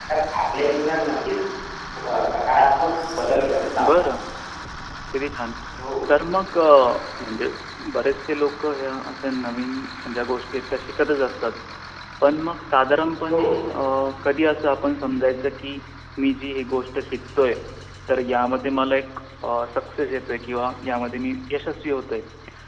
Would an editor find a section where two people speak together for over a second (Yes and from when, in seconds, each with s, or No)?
No